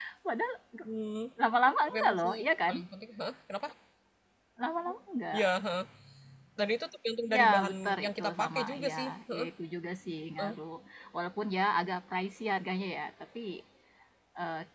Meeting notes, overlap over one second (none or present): present